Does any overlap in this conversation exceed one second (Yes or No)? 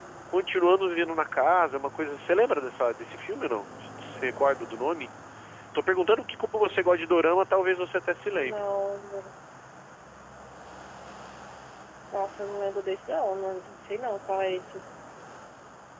No